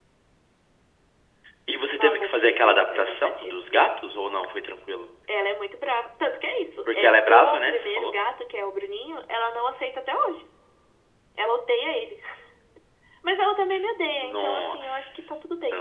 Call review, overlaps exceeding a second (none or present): present